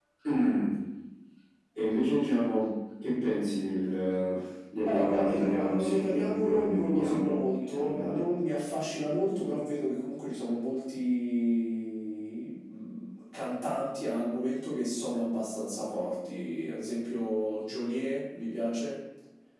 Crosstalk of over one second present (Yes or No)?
Yes